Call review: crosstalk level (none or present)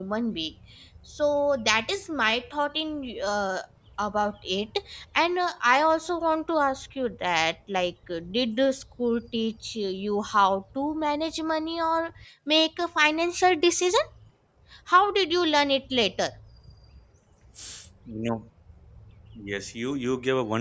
none